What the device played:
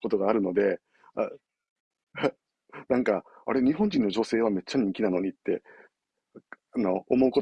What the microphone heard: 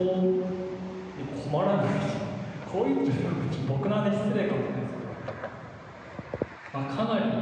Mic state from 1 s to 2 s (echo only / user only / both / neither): user only